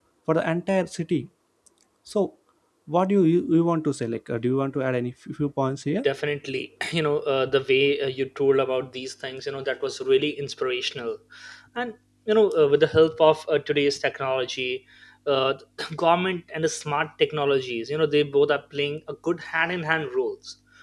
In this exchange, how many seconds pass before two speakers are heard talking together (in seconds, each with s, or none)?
none